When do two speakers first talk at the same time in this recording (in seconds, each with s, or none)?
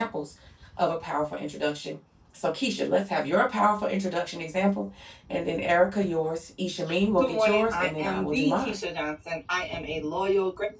7.2 s